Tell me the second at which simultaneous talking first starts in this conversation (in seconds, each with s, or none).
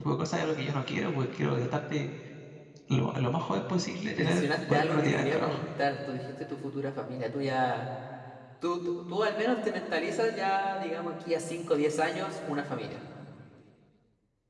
4.1 s